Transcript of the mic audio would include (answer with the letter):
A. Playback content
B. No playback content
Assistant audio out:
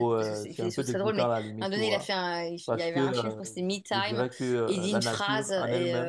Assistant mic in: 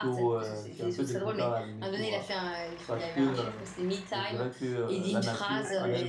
A